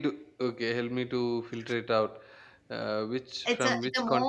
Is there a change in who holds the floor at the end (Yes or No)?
Yes